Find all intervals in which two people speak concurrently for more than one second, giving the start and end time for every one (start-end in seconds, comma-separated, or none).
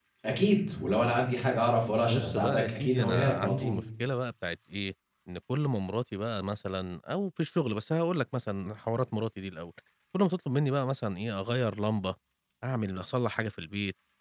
2.0-3.8